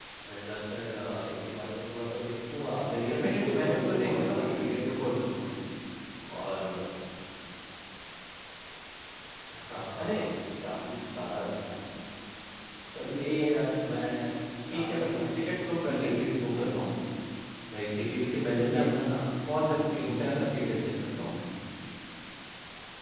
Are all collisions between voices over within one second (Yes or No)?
No